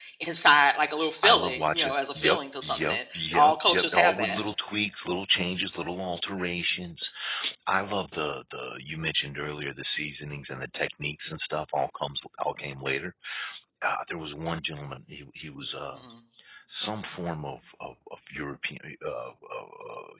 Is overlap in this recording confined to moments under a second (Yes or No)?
No